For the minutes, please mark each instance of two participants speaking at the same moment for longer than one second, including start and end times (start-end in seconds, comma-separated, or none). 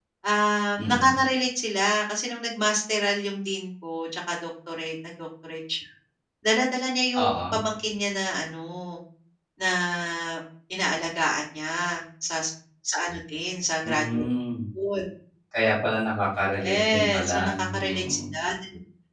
16.5-18.2